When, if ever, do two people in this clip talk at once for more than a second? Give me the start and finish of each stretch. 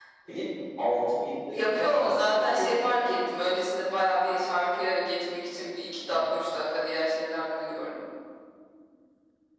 1.5-2.8

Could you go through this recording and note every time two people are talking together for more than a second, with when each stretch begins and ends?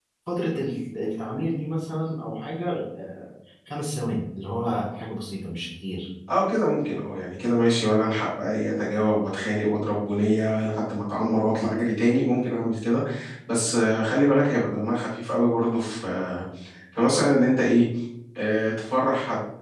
none

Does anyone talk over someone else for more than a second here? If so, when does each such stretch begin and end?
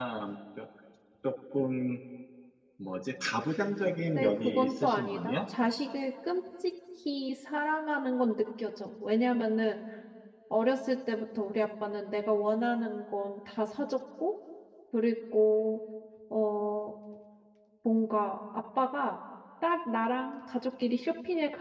4.2-5.4

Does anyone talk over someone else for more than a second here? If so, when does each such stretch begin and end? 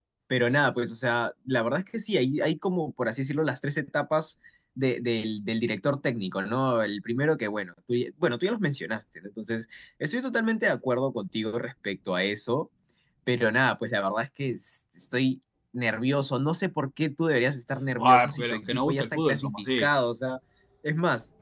18.0-19.9

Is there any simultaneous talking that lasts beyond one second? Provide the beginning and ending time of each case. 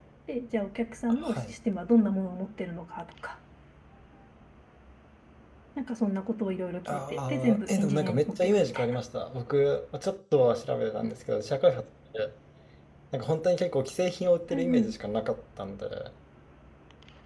6.9-9.0

